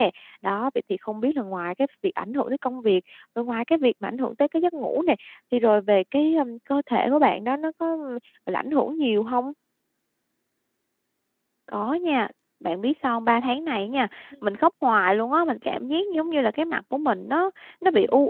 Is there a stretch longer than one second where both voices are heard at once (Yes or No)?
No